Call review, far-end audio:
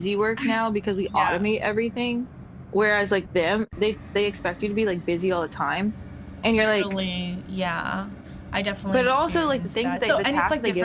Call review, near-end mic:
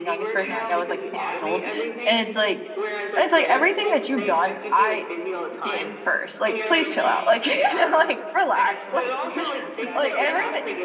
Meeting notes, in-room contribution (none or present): present